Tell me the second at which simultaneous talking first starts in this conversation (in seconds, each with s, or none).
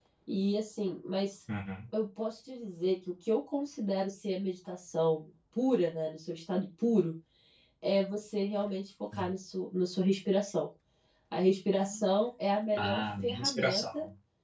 12.7 s